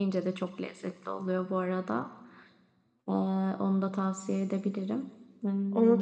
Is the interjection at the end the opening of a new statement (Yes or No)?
Yes